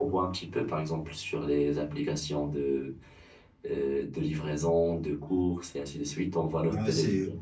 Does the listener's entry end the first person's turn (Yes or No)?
Yes